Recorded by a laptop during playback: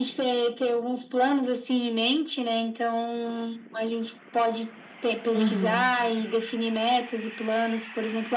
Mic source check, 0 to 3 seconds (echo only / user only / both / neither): echo only